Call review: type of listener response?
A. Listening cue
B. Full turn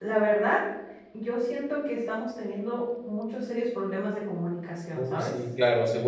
B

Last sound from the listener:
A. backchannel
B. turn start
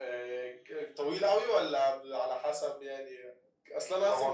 A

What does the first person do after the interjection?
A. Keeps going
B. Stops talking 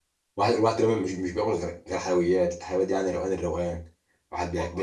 A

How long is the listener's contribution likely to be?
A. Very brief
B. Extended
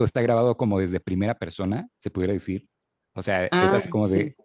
A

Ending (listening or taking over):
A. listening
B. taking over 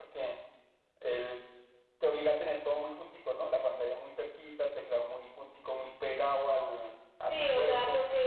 B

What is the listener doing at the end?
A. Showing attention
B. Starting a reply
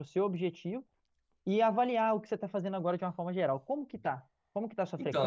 B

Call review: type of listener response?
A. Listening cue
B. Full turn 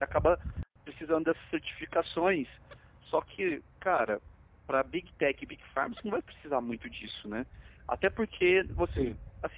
A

